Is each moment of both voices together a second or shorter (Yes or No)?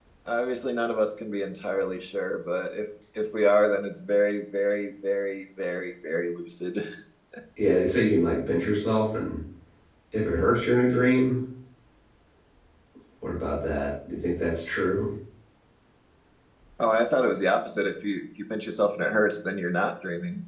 Yes